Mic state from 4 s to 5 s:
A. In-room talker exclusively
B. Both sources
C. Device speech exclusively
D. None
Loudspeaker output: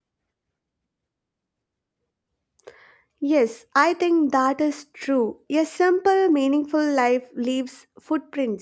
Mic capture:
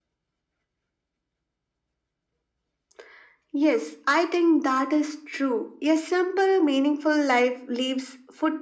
C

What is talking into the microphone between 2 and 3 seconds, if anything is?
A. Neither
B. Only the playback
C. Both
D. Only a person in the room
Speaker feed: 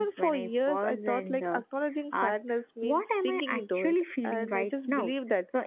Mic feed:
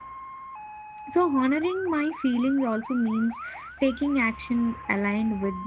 D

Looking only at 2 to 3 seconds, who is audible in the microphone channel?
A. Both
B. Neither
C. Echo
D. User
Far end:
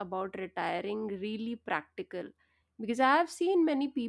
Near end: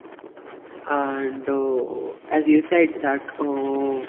D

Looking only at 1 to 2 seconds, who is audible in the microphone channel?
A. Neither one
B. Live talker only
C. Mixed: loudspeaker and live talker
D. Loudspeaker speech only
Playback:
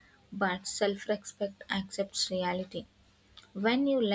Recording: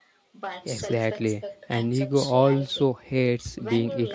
C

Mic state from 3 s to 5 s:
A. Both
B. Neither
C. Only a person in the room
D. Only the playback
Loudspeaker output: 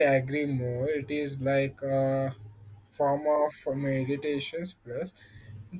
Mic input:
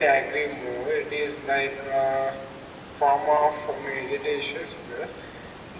D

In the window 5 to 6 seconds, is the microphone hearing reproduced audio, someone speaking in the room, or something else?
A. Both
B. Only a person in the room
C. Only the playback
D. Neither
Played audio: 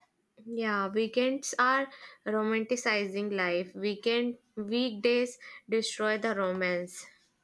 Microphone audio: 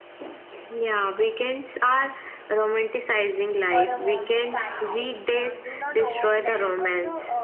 A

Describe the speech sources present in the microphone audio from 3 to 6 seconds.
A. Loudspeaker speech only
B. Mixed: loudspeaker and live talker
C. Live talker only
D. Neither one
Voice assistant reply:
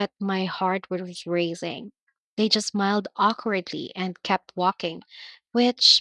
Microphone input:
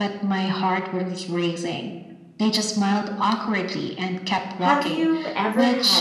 B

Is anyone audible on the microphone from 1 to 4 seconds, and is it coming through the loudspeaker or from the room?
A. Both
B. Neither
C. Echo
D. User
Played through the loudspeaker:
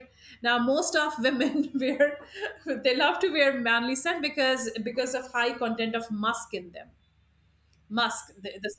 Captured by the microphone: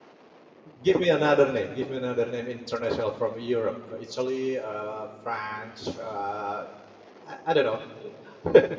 D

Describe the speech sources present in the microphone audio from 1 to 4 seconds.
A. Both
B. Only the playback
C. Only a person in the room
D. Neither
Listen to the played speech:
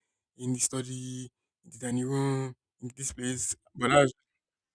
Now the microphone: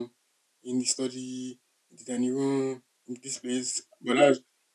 B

